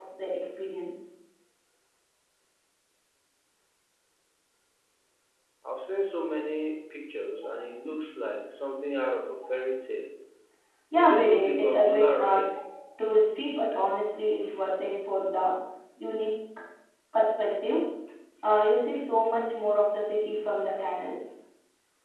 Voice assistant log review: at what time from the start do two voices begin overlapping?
11.0 s

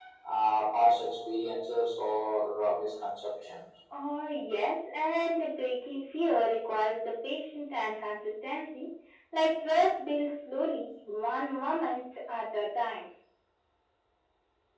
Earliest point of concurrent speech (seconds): none

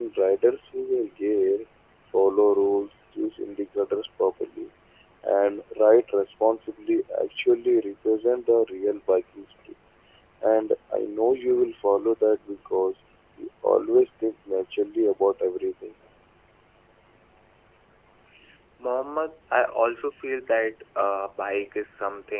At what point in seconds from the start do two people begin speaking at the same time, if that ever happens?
none

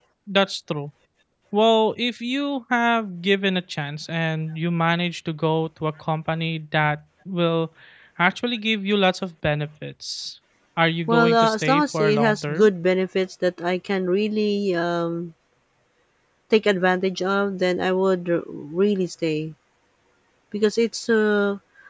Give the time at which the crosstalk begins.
11.1 s

